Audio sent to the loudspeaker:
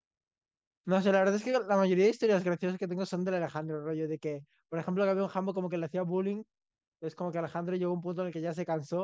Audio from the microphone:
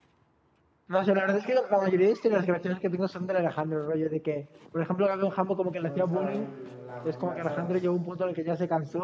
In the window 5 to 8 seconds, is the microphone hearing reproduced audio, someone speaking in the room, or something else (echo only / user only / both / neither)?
both